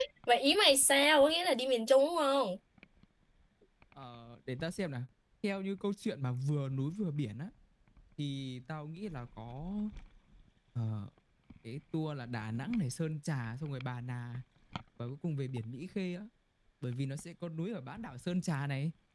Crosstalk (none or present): none